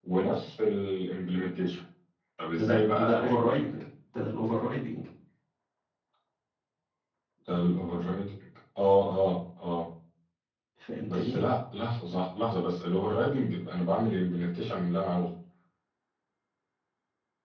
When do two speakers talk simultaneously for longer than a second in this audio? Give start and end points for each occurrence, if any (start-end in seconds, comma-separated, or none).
2.6-3.8